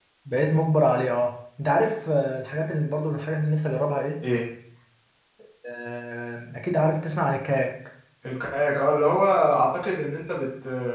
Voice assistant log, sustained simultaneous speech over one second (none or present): none